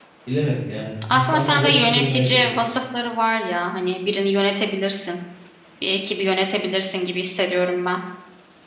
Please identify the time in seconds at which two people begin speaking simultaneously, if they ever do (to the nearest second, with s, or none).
1 s